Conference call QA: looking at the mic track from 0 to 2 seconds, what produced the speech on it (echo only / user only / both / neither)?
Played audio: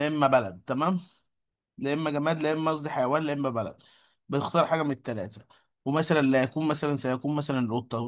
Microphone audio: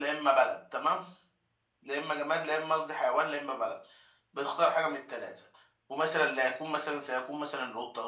echo only